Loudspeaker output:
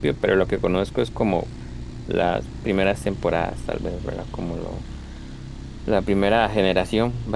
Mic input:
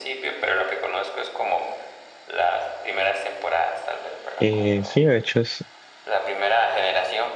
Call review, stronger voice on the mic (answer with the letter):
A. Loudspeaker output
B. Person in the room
B